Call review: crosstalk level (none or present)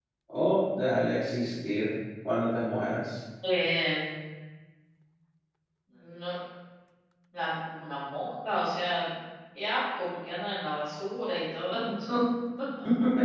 none